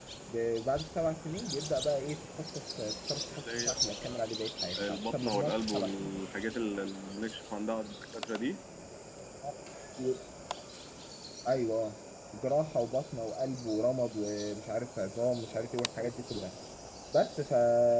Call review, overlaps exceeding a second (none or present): present